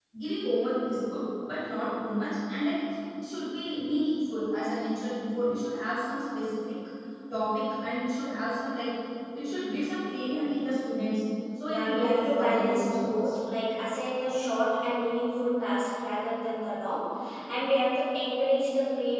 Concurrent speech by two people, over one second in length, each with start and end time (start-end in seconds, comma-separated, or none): 11.7-13.3